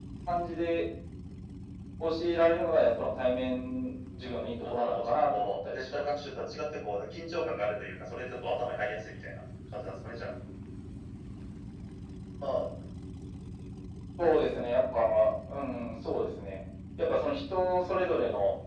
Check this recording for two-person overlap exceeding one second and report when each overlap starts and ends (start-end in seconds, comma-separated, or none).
4.6-6.0